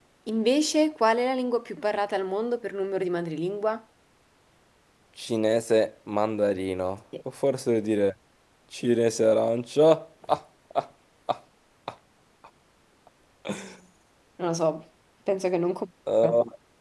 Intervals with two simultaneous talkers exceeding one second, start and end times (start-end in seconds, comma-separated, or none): none